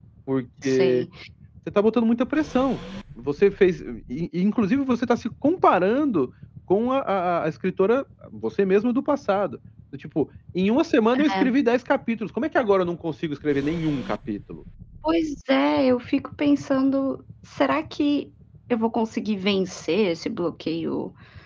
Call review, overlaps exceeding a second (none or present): none